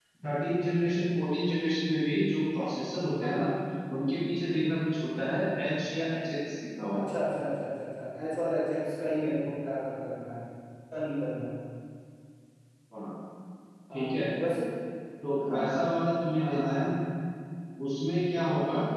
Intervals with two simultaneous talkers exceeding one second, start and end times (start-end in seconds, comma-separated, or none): none